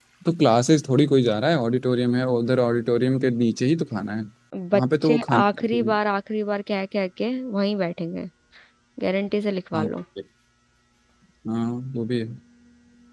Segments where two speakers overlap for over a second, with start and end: 4.7-5.9

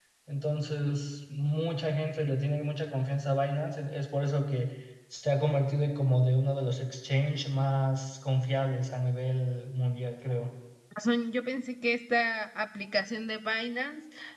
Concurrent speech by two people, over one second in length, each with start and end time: none

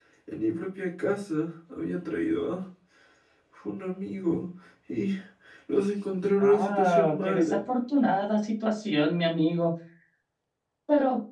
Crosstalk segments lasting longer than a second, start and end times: 6.4-7.6

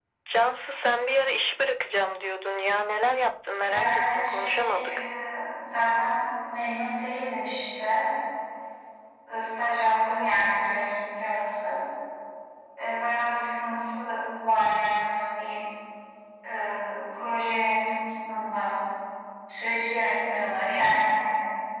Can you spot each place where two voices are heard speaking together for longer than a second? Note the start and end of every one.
3.6-4.9

